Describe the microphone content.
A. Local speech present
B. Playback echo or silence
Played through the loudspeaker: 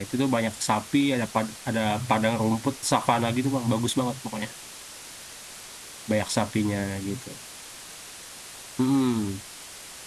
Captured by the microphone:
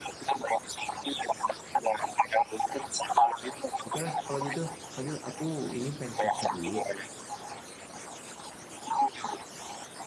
A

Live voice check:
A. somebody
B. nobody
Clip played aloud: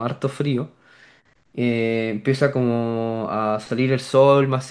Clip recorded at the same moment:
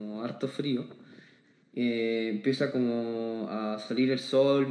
B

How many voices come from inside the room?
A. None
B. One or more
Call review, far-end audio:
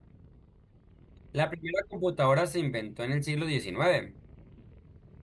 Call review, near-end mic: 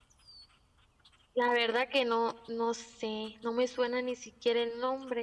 B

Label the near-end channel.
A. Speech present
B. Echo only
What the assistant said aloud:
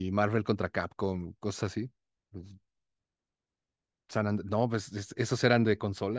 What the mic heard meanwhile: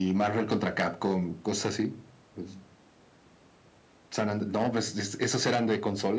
B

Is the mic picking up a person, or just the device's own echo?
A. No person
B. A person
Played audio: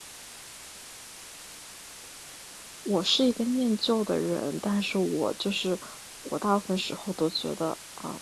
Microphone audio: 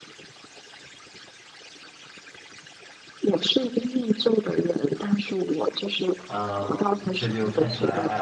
B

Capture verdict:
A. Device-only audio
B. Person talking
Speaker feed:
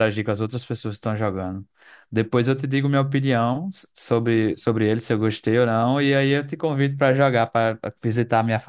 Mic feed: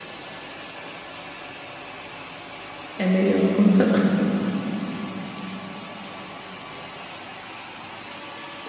B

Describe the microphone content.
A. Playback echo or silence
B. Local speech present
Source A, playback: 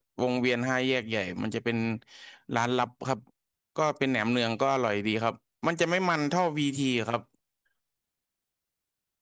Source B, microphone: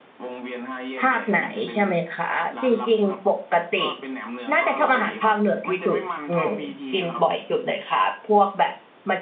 B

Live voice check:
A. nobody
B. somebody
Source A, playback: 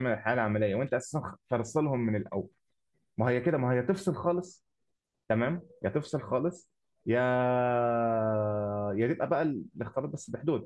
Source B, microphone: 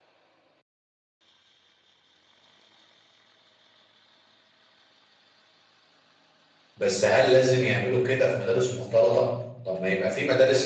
B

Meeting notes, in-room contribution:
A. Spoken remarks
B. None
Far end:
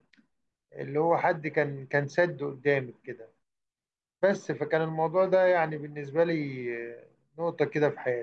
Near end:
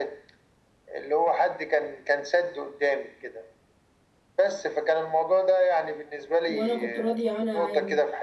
A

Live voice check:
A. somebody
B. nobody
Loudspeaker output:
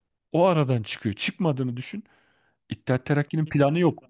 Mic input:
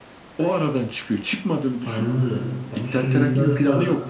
A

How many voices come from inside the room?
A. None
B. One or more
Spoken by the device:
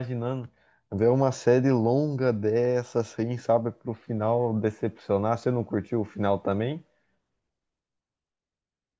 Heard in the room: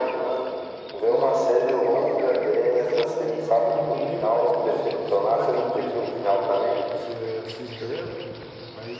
B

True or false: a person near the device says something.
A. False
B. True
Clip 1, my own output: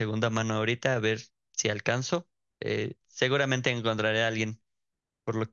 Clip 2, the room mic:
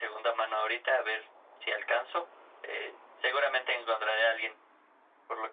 A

